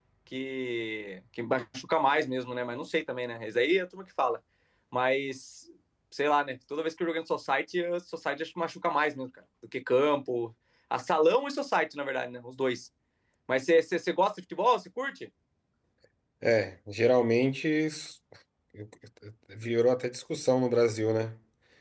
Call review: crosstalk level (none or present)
none